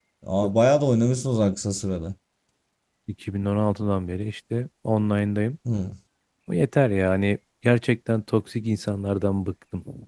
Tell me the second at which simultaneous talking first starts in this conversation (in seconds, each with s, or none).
none